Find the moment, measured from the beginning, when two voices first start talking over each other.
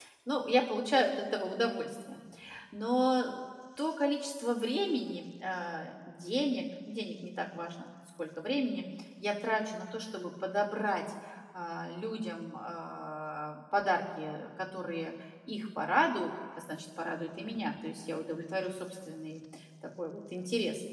none

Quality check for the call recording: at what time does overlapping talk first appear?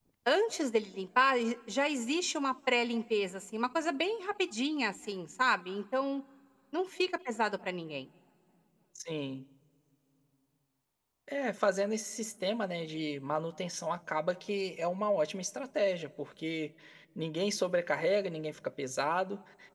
none

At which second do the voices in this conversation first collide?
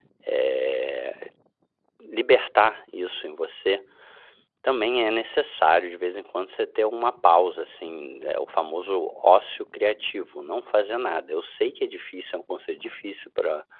none

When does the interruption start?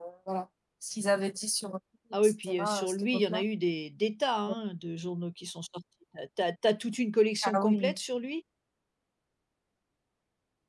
2.2 s

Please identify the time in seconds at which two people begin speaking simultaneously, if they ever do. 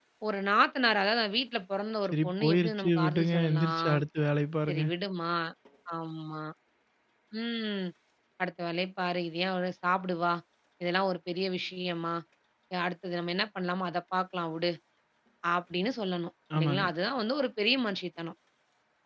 2.0 s

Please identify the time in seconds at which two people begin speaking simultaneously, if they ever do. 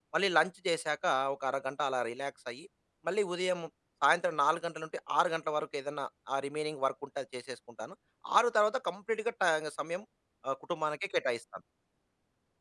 none

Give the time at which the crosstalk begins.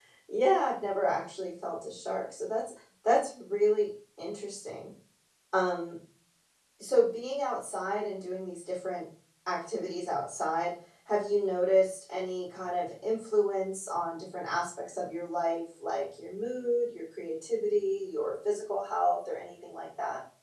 none

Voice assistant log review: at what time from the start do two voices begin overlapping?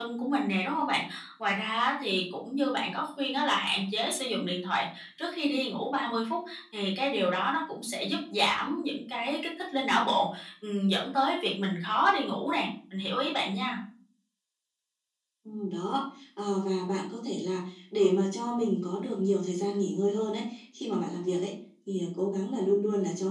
none

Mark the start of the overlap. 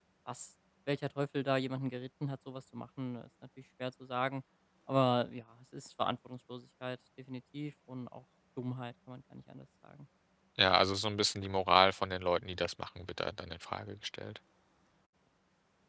none

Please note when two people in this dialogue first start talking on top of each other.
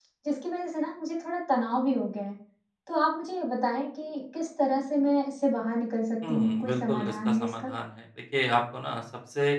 6.2 s

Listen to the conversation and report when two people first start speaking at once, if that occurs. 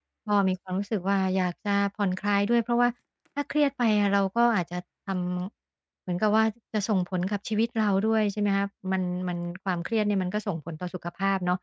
none

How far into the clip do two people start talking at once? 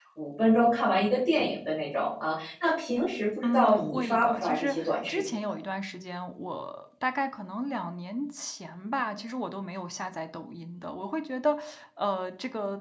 3.4 s

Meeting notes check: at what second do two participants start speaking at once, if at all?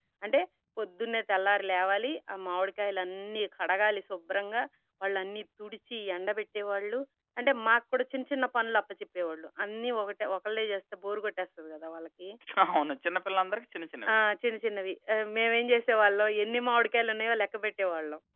none

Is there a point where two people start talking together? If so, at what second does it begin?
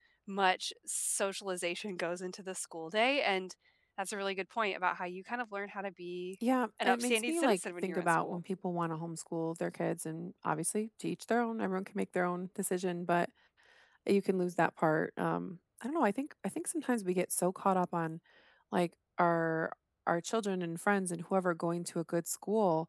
6.8 s

